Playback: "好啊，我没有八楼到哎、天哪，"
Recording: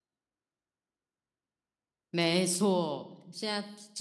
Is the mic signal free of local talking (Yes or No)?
No